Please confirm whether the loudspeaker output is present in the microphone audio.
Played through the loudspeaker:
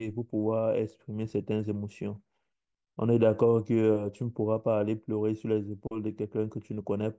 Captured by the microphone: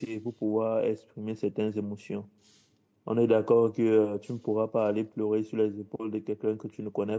Yes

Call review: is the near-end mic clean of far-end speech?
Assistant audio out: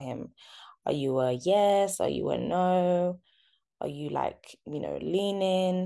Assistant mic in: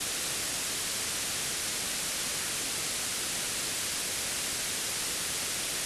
Yes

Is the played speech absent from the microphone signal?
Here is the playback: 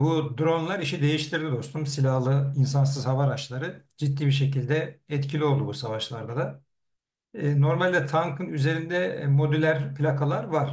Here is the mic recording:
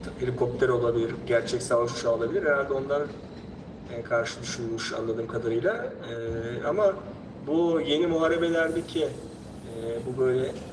Yes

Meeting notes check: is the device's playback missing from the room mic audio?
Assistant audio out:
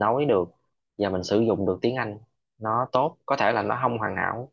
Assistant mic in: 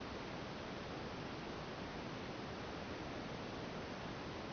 Yes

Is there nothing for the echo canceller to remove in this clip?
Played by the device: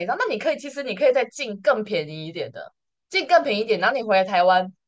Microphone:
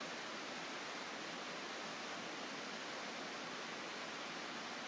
Yes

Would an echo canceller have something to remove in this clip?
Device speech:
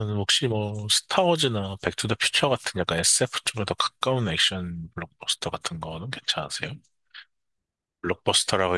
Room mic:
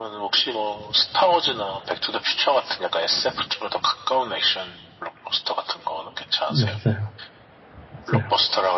Yes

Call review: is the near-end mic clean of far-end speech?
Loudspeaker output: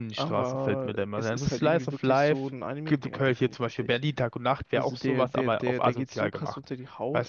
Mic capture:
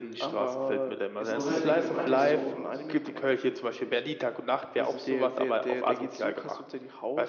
No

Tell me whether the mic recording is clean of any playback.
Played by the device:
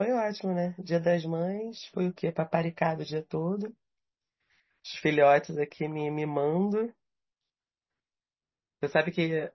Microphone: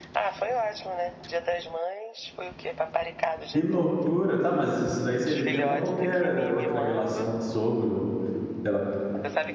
No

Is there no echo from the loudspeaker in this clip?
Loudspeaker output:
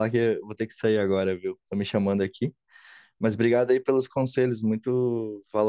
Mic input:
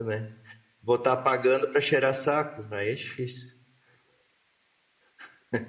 Yes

